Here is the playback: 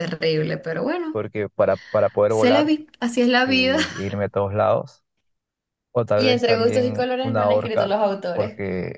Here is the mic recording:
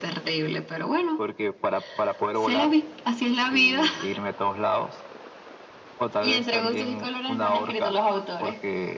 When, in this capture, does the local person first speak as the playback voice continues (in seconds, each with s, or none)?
none